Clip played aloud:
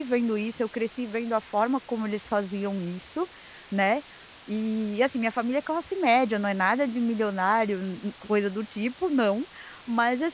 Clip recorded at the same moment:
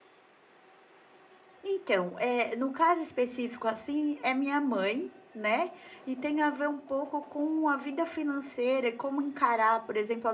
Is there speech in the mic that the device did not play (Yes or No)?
Yes